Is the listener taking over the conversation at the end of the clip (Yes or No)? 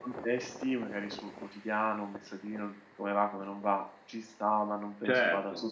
Yes